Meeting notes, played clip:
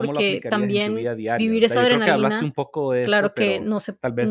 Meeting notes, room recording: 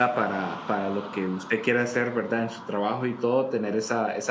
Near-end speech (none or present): present